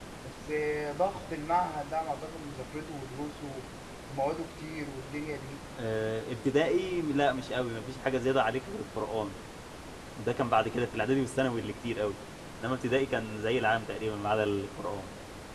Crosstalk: none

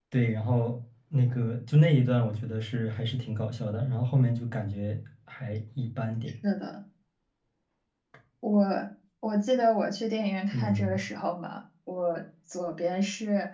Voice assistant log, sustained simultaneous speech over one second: none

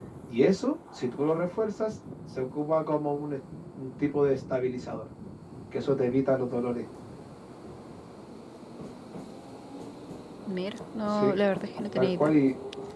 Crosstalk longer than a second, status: none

